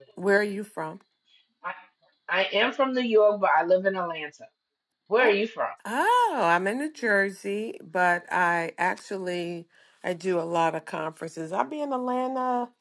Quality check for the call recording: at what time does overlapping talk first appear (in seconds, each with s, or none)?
none